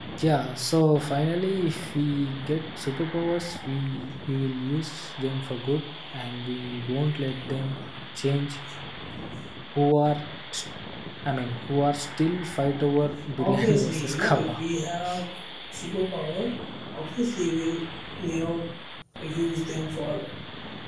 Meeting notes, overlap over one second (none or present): present